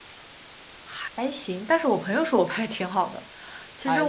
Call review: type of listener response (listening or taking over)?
taking over